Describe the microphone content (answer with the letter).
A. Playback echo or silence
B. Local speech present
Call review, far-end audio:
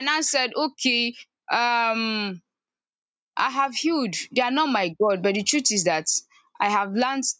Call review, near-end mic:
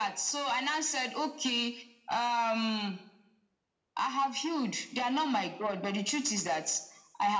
A